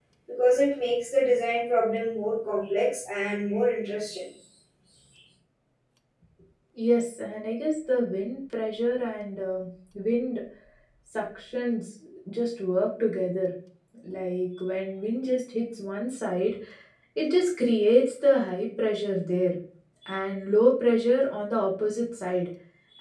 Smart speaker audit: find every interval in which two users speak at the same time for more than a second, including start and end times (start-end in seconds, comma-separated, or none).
none